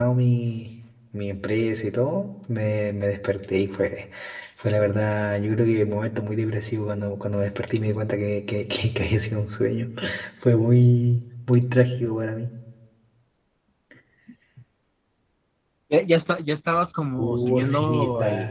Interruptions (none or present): present